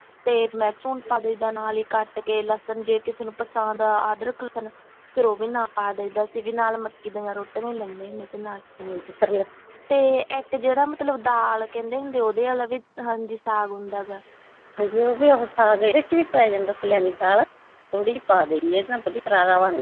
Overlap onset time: none

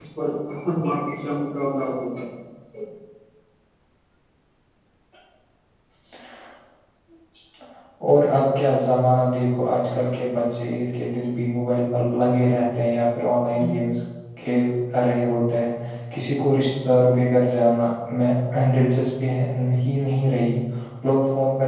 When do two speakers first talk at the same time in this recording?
none

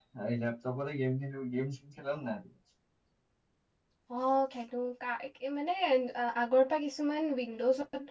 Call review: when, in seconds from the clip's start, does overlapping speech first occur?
none

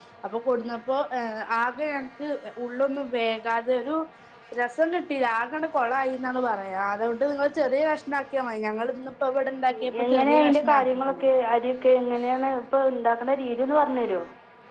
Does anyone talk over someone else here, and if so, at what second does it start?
9.7 s

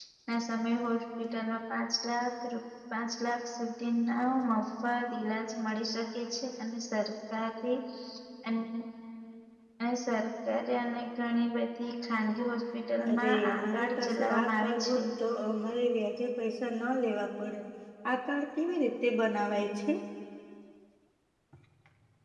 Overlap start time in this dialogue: 13.0 s

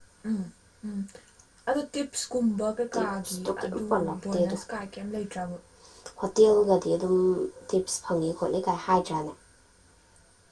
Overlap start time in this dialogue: 2.9 s

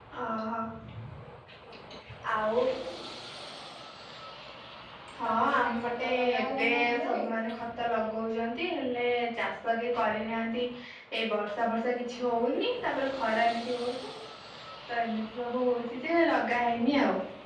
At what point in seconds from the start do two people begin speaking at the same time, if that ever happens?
5.3 s

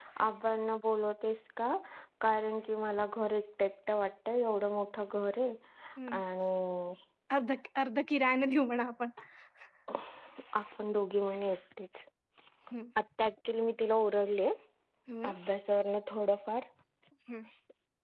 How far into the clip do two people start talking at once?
none

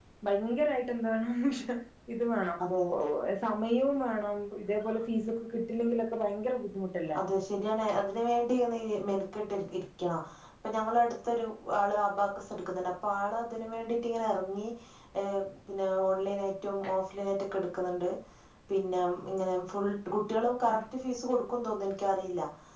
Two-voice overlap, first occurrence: none

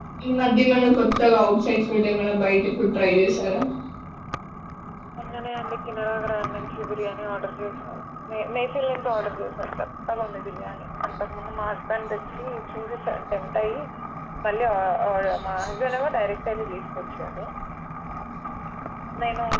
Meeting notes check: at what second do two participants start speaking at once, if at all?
none

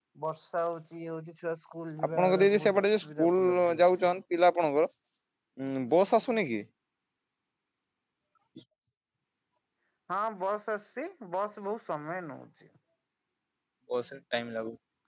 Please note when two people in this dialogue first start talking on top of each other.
2.0 s

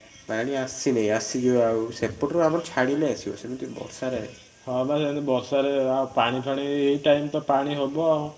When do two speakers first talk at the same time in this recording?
none

